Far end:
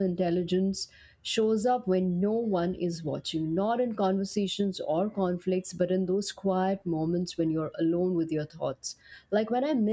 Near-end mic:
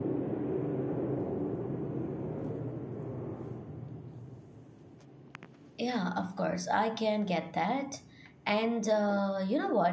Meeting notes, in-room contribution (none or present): present